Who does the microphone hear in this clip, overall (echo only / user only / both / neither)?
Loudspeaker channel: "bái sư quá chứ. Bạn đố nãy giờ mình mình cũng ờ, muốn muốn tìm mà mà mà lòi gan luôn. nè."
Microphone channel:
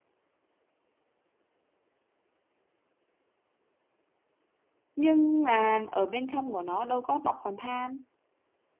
user only